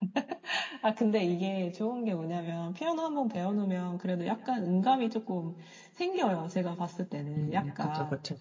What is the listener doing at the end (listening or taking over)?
taking over